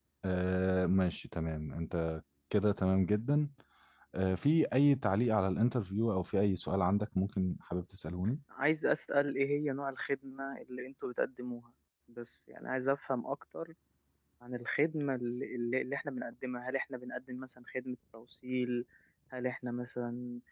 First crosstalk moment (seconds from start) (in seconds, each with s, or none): none